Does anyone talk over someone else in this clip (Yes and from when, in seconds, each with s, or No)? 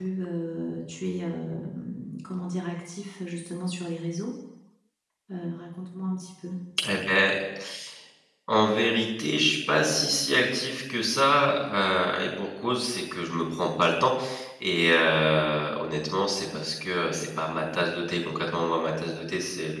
No